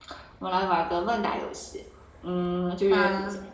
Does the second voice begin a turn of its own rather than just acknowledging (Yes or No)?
No